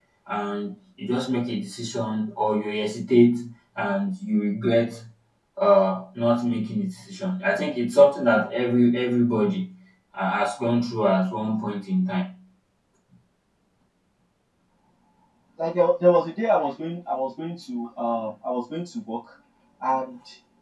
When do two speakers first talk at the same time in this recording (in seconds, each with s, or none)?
none